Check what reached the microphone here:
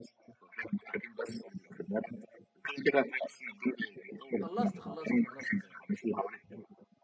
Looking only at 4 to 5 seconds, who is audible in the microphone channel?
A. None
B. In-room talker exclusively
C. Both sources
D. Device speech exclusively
C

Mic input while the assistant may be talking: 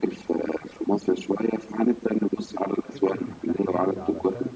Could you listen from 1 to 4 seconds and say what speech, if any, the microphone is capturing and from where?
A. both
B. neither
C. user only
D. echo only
A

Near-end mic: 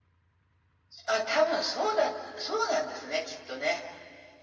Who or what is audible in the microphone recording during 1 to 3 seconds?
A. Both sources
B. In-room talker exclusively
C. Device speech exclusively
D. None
C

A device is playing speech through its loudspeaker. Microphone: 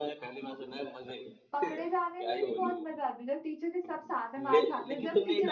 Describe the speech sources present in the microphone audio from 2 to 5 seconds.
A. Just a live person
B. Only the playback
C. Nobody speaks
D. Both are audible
D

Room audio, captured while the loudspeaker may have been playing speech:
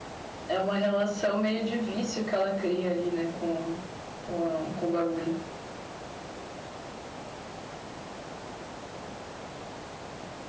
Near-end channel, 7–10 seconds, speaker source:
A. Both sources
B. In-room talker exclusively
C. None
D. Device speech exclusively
C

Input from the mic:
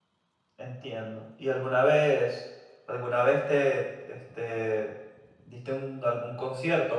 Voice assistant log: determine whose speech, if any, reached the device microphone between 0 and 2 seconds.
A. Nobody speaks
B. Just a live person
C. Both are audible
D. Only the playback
B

